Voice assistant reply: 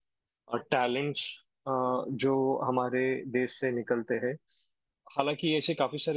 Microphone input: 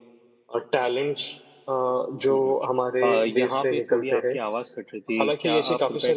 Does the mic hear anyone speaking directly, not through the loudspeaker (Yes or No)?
Yes